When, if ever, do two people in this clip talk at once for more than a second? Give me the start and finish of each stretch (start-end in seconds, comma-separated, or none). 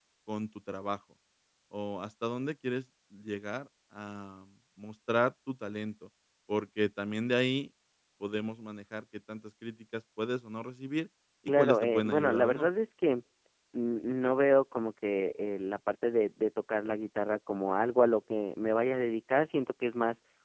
11.5-12.7